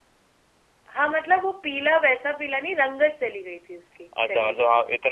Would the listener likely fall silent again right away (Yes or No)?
No